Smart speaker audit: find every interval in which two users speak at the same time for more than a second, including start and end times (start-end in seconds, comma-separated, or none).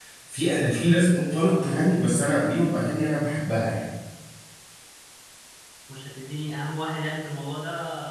none